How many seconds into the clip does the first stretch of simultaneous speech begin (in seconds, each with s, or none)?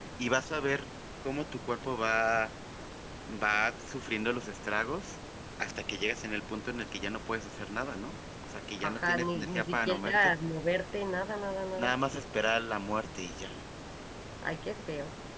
8.8 s